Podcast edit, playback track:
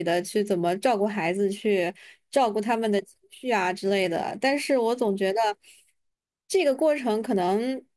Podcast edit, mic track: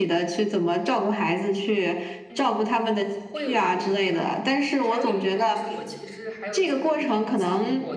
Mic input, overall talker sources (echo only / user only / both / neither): both